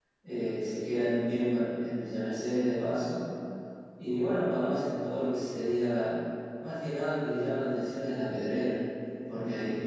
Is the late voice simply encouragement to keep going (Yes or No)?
Yes